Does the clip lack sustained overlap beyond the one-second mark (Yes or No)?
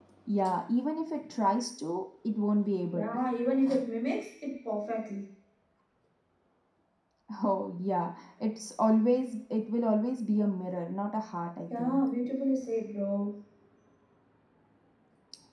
Yes